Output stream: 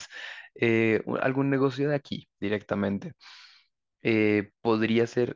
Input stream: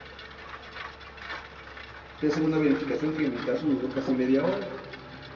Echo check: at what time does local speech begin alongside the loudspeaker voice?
2 s

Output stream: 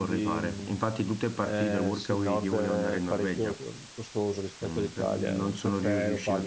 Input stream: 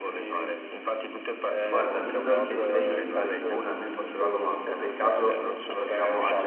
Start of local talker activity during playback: 2 s

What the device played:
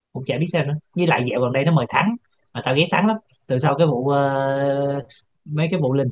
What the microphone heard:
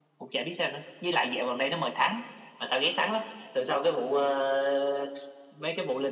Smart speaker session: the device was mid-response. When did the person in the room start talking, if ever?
none

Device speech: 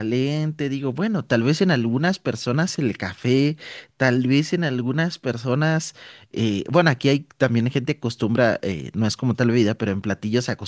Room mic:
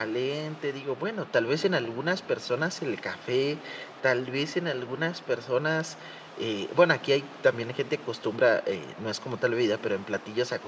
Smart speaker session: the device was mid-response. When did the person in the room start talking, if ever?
none

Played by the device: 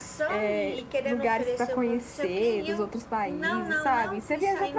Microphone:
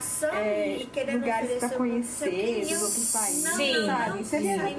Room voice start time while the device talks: 3 s

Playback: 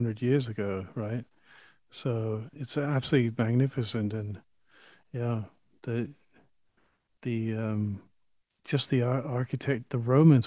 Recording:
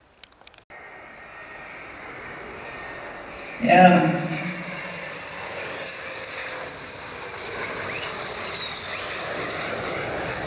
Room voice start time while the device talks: 4 s

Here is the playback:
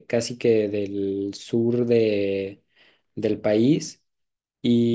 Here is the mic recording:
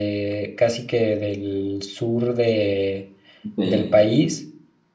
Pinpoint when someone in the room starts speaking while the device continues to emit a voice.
3 s

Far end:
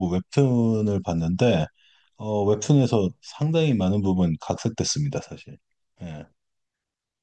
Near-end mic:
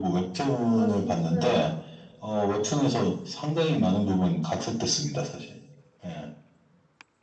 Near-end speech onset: 1 s

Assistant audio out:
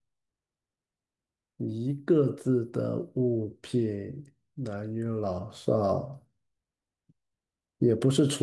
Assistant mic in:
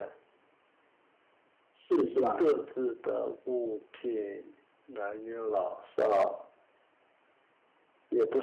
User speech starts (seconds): 2 s

